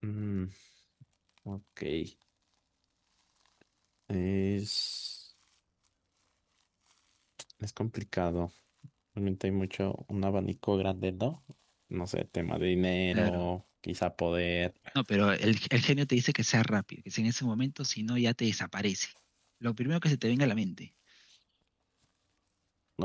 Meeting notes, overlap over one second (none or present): none